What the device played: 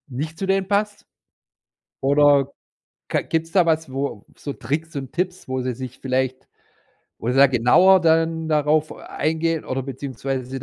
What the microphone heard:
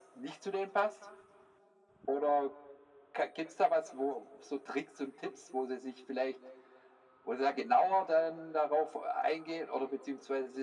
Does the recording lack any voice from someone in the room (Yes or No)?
Yes